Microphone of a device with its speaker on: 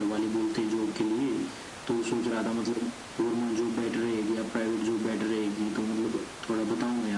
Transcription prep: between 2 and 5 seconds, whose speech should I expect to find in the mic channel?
echo only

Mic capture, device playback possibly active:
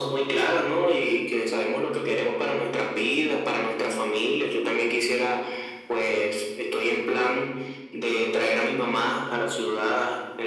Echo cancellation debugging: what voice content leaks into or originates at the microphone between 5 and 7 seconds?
echo only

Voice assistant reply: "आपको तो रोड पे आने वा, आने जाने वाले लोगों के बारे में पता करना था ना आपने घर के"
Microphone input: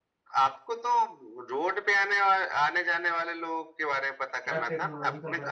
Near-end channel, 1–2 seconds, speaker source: echo only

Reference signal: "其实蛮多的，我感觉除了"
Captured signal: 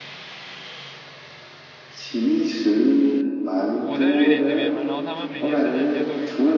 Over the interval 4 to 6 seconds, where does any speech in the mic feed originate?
both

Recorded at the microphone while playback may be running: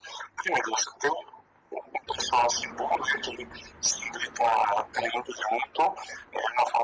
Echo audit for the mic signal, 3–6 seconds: echo only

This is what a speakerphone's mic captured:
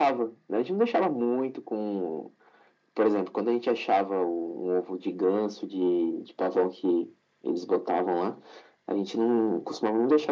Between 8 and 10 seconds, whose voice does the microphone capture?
echo only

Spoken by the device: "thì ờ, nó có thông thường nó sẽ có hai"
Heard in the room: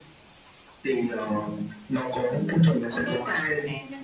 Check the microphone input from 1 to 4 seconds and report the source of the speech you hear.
both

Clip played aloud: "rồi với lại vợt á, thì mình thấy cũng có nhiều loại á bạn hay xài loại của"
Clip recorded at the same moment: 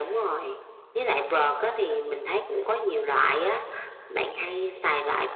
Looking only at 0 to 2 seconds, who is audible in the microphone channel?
echo only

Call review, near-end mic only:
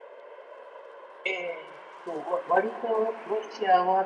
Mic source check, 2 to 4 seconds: echo only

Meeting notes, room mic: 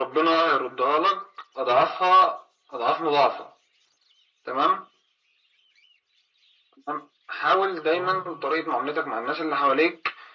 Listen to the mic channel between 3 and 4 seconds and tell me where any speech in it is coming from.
echo only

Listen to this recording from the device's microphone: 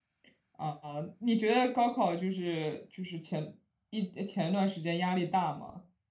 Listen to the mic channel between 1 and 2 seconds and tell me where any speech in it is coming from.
user only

